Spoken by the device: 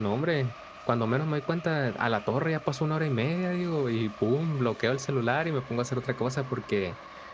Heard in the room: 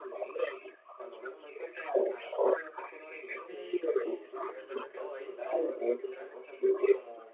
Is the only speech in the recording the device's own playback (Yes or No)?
No